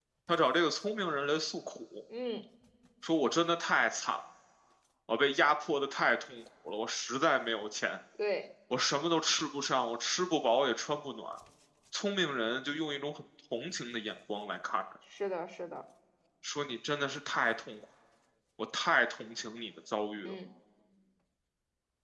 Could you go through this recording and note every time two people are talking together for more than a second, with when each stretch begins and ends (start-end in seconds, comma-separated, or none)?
none